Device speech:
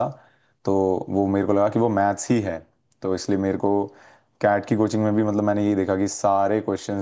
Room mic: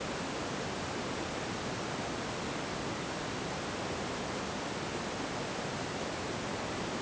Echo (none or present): none